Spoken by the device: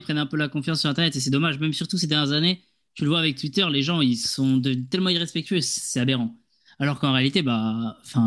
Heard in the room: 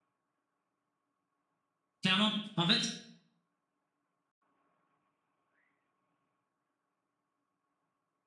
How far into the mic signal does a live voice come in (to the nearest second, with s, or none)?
2 s